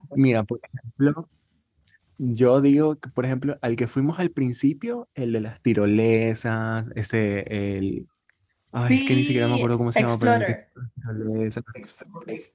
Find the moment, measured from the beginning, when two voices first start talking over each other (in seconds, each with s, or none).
8.9 s